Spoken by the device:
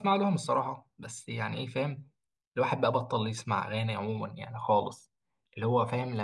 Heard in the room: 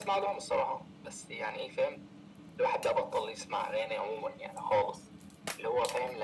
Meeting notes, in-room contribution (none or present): none